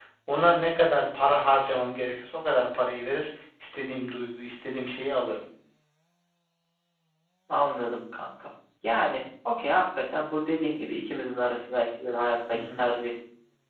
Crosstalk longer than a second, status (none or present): none